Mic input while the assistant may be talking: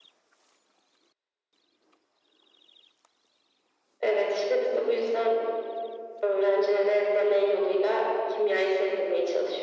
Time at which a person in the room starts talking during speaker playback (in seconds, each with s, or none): none